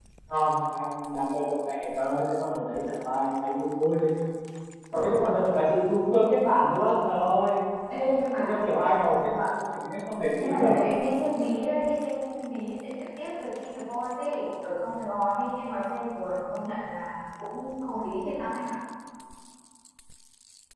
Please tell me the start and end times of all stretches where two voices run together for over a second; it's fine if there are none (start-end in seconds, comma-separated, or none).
none